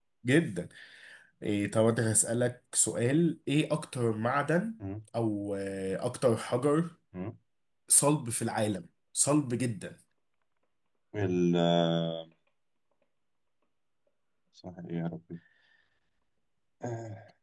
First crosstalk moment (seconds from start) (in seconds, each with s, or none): none